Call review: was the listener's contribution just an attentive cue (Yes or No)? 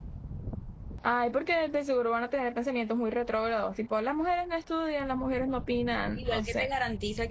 No